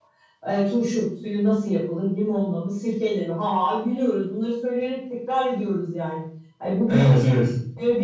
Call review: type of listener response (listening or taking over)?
listening